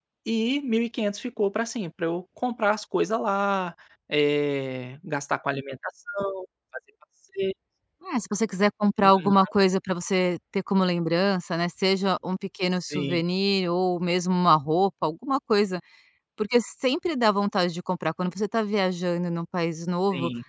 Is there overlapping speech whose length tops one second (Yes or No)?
No